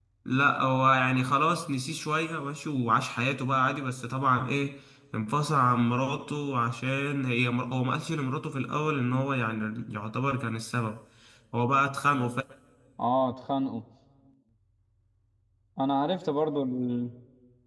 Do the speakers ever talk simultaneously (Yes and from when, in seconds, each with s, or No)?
No